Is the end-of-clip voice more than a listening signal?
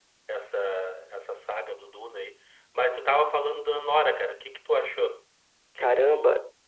Yes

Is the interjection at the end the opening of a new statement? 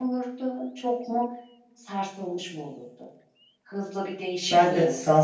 Yes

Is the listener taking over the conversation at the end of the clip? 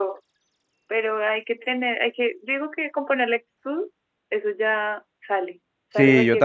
Yes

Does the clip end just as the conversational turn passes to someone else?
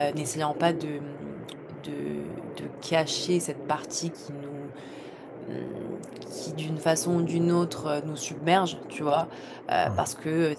No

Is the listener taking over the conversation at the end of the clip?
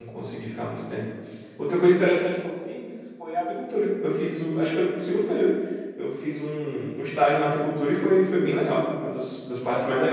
Yes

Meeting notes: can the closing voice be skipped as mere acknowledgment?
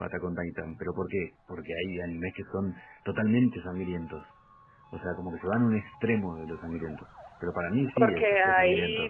No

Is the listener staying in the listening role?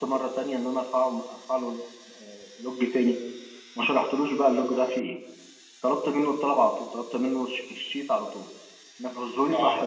No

